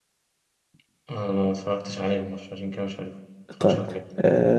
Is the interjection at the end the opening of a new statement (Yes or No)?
Yes